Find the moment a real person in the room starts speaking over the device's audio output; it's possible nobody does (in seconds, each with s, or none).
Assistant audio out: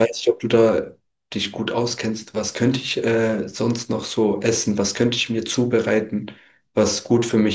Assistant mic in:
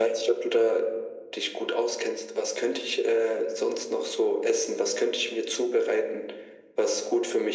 none